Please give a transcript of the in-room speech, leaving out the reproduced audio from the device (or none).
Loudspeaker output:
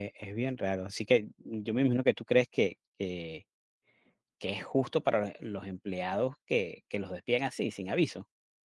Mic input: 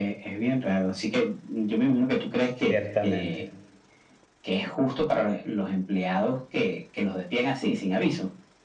ciertamente.